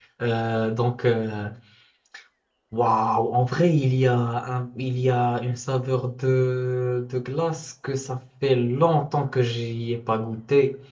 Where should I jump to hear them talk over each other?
none

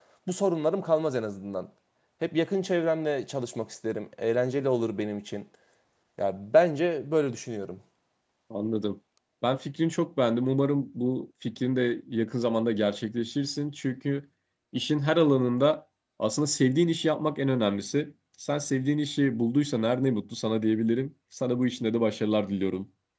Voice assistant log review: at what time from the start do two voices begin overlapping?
none

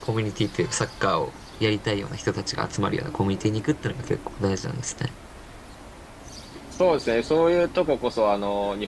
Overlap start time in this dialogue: none

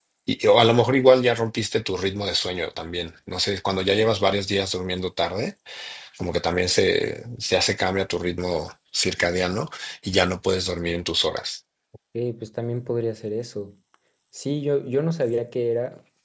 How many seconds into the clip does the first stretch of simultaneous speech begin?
none

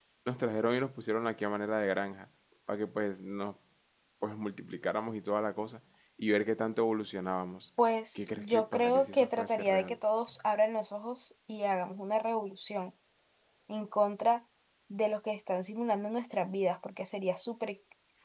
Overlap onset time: 8.2 s

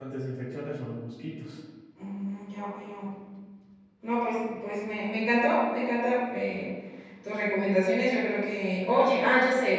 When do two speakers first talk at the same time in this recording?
none

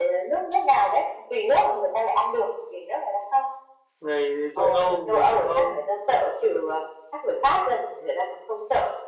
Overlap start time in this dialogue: 4.6 s

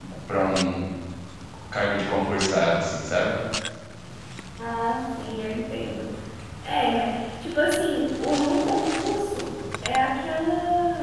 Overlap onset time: none

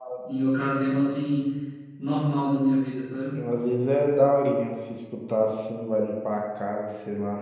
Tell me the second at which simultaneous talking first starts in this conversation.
none

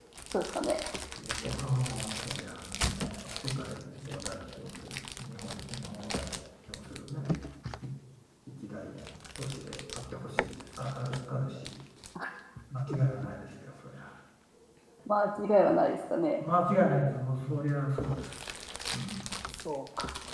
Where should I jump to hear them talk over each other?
none

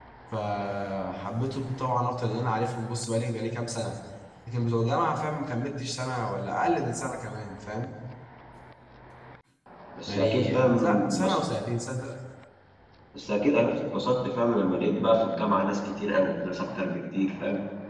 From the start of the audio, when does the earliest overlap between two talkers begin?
10.1 s

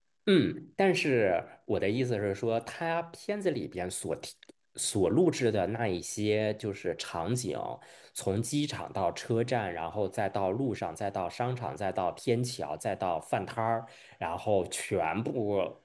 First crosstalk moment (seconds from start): none

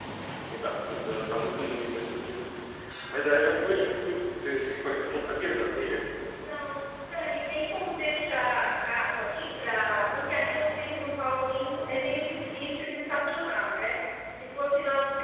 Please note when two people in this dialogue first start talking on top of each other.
none

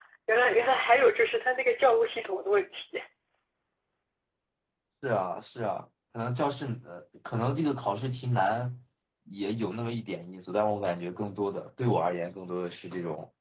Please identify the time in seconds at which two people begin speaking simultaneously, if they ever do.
none

